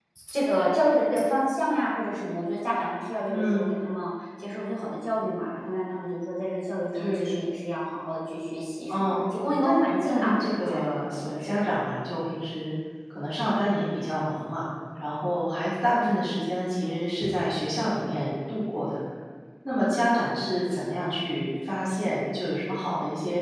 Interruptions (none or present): present